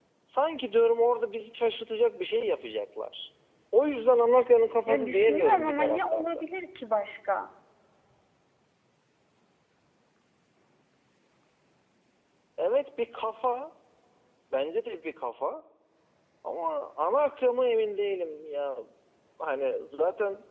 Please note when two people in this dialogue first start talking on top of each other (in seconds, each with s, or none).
4.9 s